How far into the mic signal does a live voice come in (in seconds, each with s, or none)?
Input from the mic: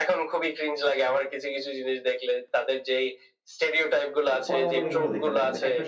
4.3 s